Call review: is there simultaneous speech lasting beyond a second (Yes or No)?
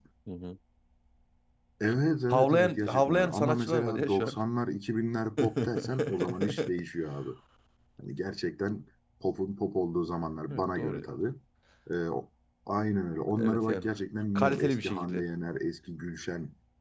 Yes